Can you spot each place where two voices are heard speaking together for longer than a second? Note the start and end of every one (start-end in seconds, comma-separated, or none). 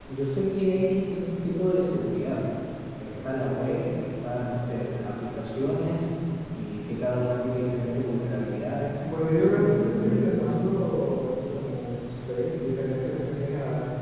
9.3-10.5